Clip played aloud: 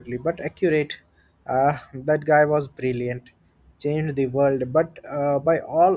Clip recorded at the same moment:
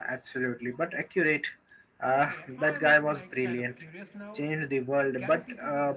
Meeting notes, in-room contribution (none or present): present